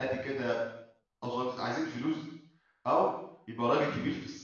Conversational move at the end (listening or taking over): listening